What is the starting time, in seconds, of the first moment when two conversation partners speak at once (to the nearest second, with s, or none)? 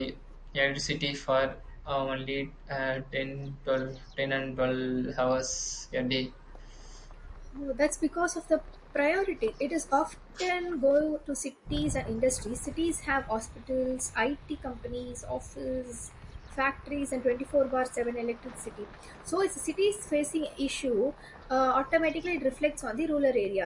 none